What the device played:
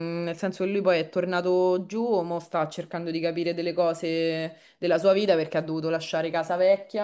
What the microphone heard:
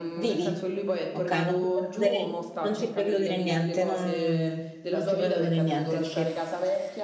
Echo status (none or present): present